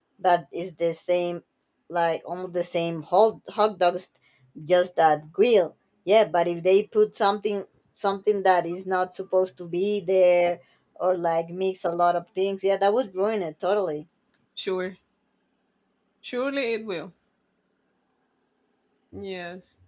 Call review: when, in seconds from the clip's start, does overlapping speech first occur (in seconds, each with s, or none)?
none